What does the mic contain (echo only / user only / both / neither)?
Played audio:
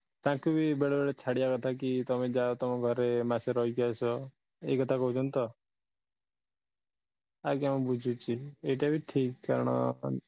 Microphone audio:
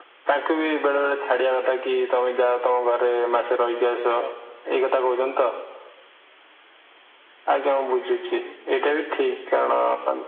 echo only